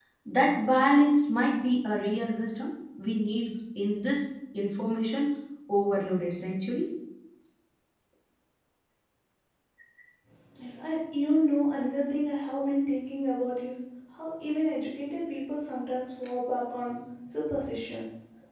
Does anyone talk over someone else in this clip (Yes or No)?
No